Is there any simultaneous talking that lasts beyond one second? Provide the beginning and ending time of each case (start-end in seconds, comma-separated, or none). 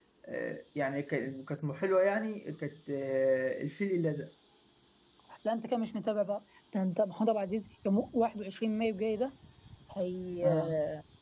none